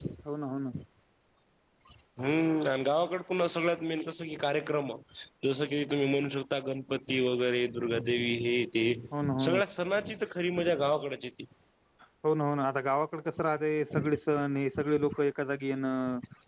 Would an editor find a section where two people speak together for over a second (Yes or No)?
No